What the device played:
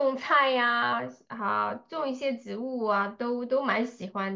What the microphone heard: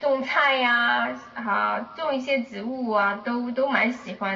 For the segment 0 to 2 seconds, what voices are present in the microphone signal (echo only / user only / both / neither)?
echo only